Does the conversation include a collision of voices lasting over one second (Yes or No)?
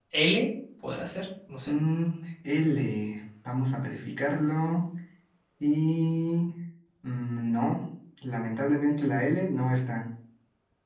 No